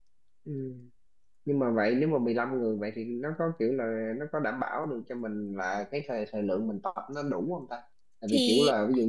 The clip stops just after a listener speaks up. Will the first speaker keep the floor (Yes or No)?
Yes